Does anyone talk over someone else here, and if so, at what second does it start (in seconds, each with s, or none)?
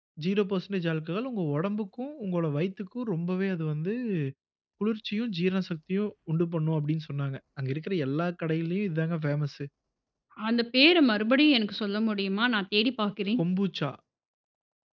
none